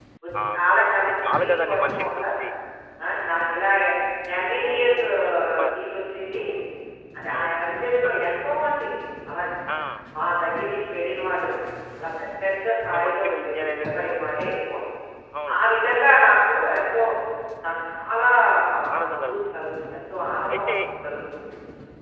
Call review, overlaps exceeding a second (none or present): present